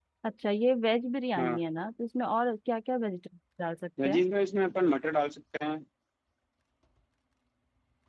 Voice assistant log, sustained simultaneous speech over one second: none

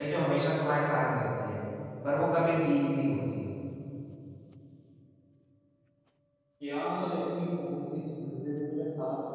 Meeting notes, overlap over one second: none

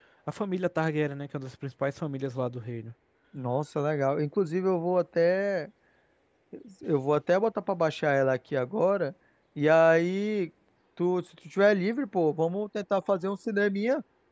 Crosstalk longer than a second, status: none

